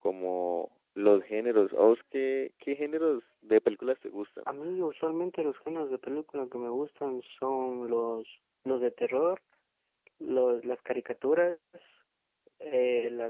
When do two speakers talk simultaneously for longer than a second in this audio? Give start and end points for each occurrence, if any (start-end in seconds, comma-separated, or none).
none